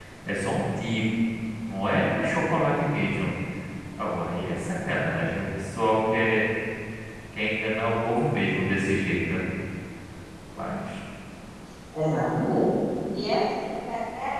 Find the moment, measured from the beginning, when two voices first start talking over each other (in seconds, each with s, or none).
none